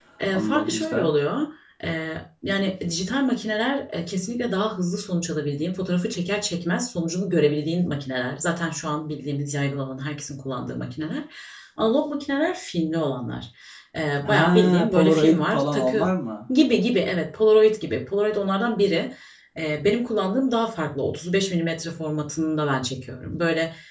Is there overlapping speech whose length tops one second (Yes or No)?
Yes